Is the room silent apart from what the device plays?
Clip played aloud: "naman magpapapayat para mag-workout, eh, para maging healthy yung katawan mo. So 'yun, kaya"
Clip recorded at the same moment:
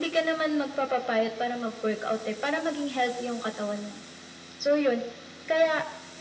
Yes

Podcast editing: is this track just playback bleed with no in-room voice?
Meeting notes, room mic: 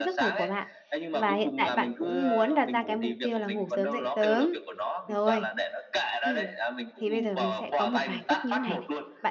No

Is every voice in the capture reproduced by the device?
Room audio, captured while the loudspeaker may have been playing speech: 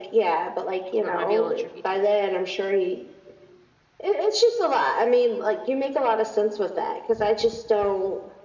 No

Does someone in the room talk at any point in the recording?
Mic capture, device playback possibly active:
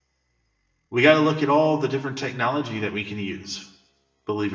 Yes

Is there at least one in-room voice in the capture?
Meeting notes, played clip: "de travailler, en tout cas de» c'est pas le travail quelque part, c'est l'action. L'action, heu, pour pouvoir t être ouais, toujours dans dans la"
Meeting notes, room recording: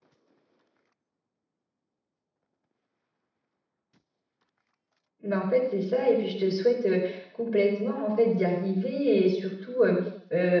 Yes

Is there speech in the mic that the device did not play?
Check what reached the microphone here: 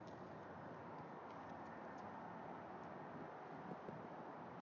No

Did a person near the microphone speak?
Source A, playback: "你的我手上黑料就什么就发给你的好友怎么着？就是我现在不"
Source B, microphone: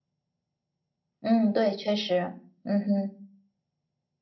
Yes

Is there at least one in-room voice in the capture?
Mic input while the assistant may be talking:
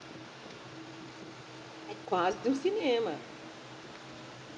Yes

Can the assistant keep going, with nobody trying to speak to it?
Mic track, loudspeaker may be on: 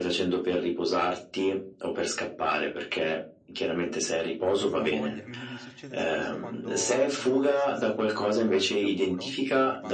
No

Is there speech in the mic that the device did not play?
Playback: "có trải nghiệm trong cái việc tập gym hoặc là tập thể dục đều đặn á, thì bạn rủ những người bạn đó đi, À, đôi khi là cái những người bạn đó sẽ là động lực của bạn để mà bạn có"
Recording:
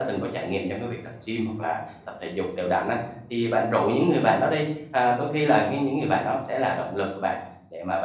No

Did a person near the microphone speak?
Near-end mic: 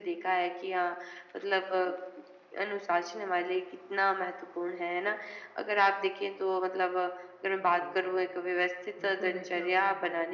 Yes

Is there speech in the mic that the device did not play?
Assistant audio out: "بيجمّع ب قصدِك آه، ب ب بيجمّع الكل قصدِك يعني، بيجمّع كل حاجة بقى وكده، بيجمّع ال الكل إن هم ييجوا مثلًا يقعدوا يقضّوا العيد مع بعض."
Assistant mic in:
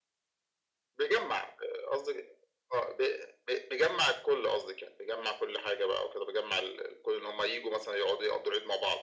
No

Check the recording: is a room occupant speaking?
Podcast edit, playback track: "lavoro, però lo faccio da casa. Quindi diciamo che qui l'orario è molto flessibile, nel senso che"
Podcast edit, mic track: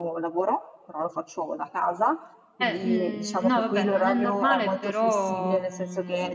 Yes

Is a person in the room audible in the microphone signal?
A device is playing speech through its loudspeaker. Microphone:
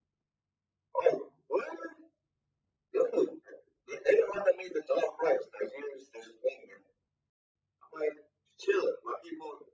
No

